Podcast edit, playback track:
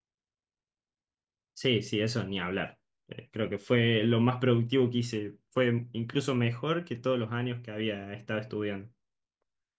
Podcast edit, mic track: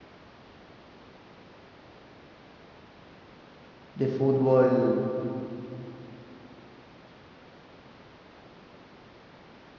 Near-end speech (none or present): present